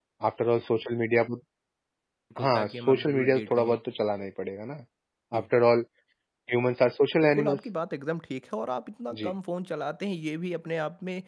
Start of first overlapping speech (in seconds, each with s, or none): 2.4 s